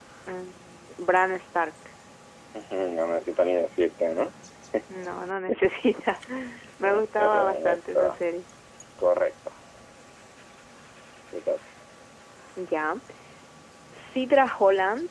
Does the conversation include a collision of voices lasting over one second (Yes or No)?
Yes